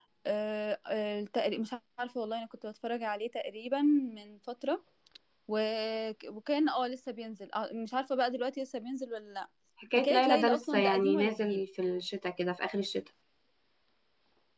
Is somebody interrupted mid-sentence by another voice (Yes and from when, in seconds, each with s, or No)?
Yes, from 10.0 s